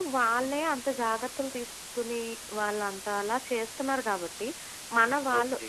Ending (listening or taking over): listening